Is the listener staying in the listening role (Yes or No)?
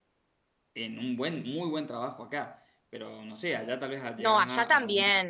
No